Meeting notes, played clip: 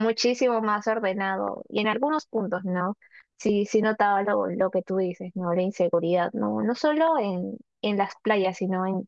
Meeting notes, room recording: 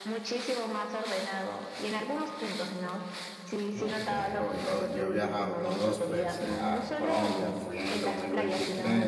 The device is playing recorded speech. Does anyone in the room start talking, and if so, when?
3.8 s

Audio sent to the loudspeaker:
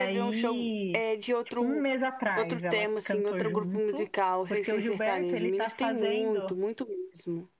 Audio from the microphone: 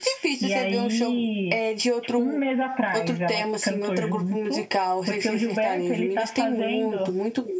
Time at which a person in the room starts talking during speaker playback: none

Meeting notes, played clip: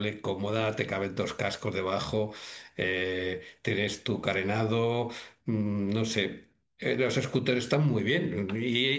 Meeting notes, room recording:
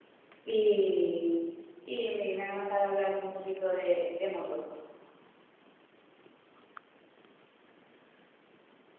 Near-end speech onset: 0.4 s

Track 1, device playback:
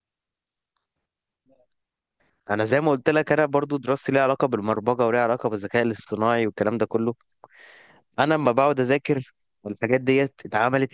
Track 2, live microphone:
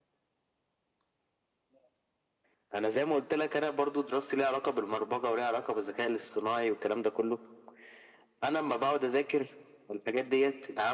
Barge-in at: none

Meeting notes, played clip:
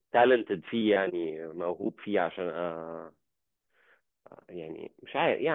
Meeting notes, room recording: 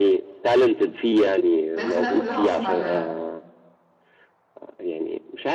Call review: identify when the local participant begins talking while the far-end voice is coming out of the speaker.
1.8 s

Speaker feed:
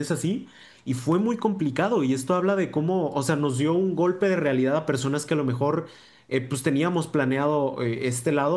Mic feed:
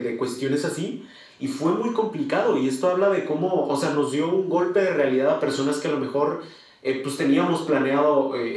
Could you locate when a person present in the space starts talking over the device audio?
none

